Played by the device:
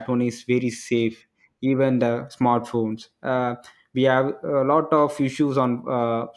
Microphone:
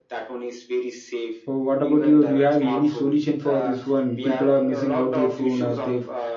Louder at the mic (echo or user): user